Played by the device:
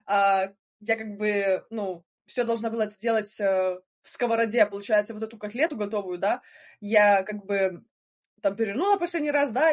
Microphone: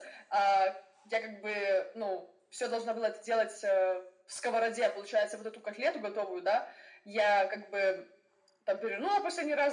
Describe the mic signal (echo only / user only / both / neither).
echo only